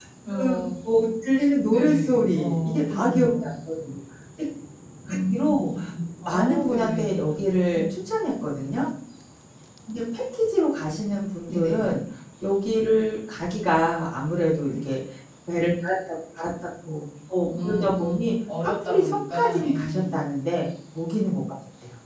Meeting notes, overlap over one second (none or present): present